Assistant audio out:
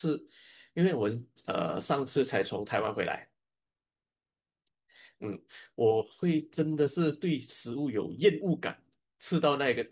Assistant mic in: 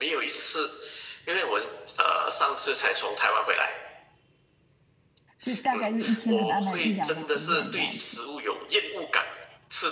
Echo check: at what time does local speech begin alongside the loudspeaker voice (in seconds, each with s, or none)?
5.4 s